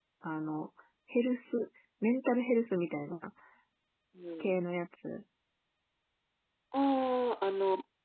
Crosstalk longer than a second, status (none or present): none